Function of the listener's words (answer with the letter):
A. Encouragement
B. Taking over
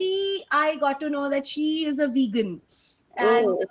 A